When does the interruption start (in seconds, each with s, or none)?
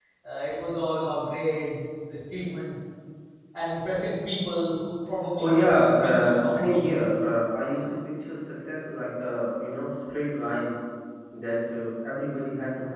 5.4 s